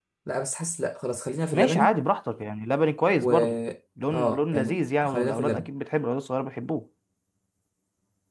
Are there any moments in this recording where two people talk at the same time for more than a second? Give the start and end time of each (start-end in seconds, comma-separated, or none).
4.1-5.7